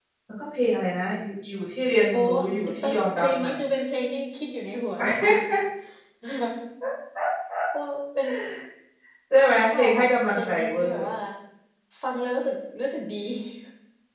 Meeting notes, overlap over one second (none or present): present